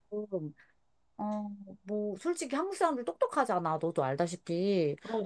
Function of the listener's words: listening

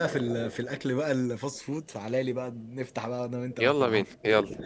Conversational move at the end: taking over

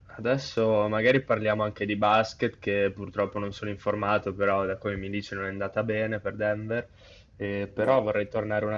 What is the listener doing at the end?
listening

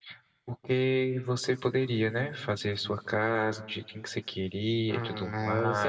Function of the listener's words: taking over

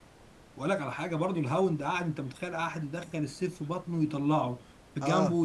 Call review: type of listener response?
listening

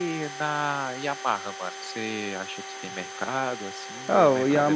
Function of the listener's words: taking over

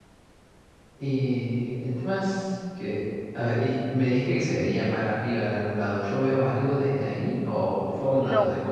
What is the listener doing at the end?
taking over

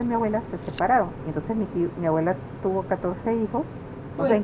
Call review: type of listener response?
listening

